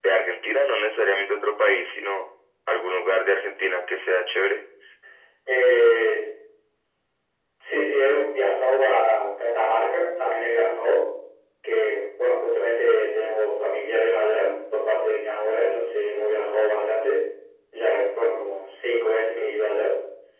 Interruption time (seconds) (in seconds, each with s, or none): none